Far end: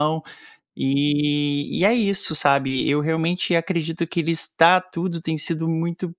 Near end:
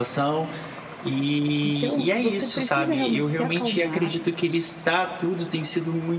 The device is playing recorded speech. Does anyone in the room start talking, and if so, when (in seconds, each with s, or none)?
1.6 s